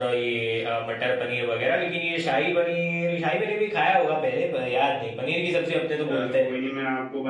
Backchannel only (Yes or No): No